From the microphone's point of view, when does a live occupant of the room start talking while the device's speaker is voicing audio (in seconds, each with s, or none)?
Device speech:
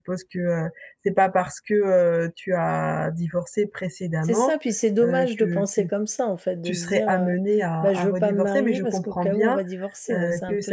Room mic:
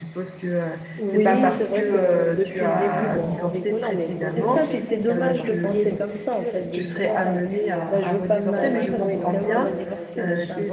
1.0 s